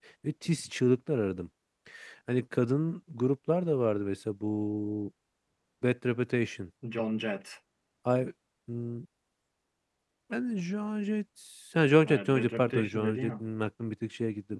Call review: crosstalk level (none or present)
present